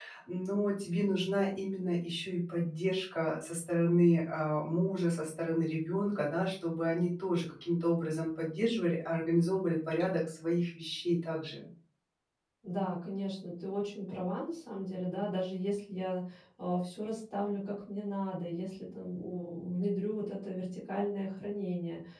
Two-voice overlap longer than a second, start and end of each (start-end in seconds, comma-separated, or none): none